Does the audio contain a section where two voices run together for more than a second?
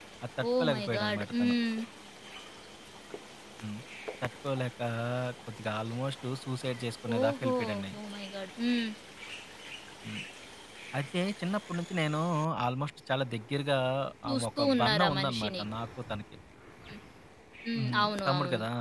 Yes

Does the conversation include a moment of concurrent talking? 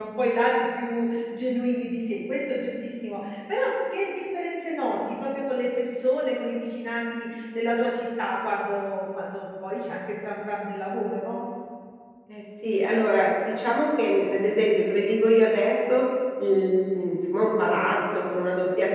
No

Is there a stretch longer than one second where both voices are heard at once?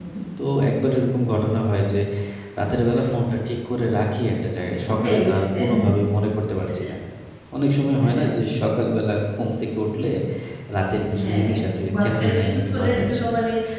Yes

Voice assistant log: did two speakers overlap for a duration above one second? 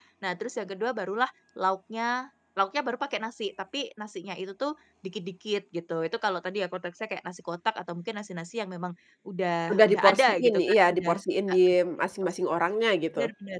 Yes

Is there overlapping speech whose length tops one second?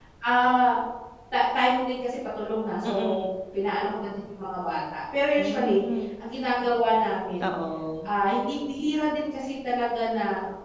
No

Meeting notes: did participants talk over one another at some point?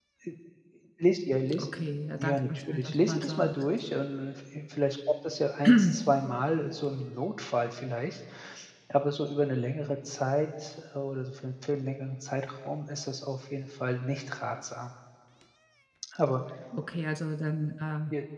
Yes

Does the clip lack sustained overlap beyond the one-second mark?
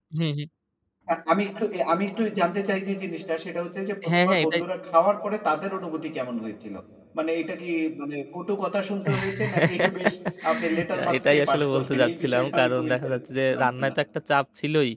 No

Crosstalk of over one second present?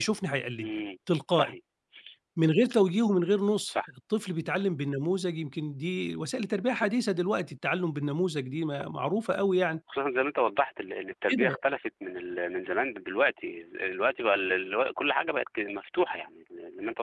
No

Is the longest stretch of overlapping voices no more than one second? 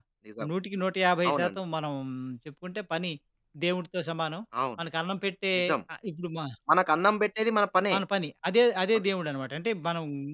Yes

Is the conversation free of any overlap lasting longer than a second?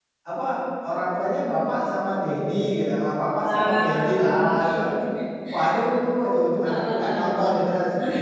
No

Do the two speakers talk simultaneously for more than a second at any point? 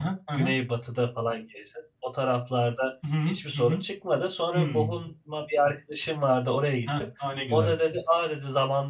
No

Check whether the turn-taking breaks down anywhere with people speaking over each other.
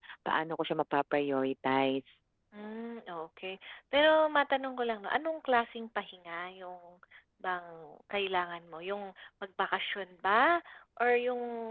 No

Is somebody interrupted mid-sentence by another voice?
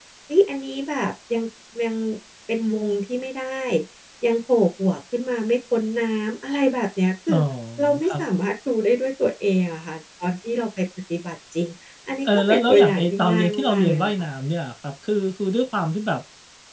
Yes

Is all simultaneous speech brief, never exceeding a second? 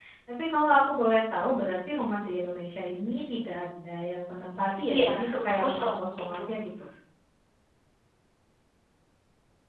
No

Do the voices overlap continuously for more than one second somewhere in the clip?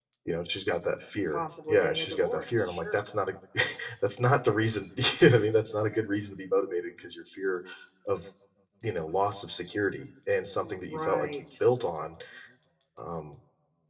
Yes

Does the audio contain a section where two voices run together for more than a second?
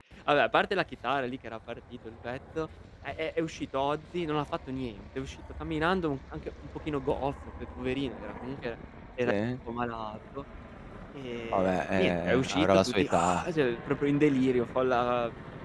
Yes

